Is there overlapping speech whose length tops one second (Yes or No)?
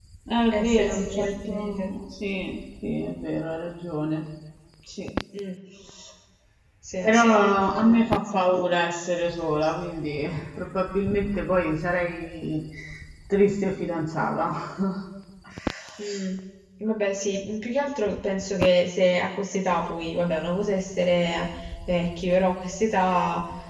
Yes